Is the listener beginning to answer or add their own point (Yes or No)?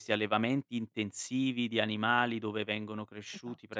No